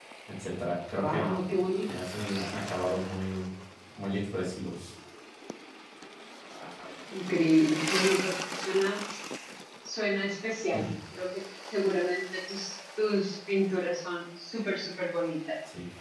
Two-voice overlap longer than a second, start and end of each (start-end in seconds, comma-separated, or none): none